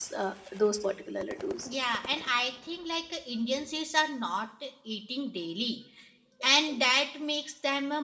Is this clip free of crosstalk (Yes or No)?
Yes